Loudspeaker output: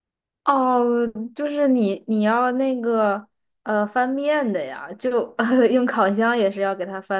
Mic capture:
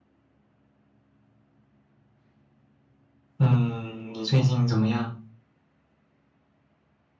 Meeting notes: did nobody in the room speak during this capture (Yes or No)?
No